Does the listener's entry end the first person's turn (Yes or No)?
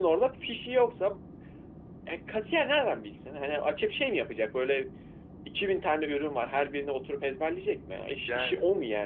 No